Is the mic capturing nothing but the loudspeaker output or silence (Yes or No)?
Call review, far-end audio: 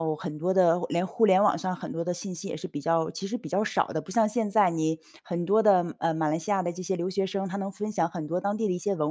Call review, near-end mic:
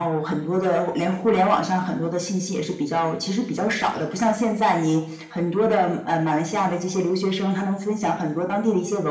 Yes